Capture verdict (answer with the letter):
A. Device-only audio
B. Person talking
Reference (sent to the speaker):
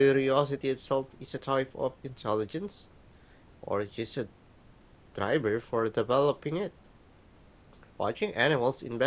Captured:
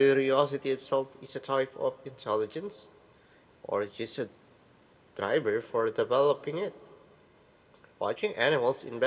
A